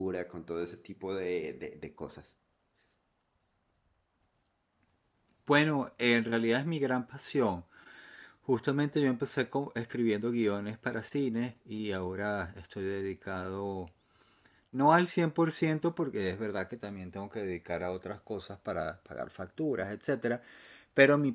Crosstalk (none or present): none